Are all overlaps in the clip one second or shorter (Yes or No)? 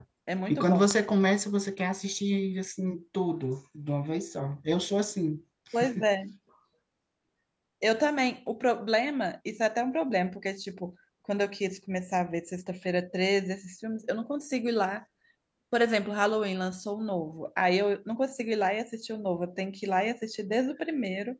Yes